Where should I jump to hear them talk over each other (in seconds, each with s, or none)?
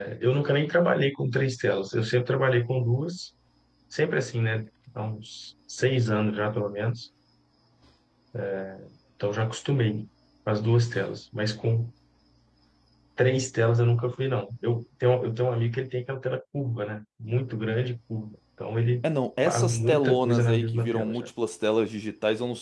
19.4 s